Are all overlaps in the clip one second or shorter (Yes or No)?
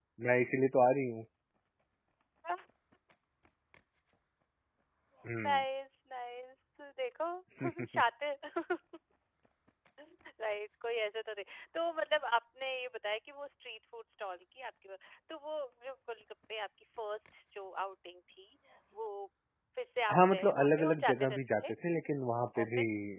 No